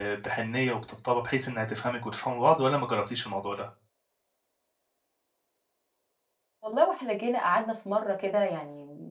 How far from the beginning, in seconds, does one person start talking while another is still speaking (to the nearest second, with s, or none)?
none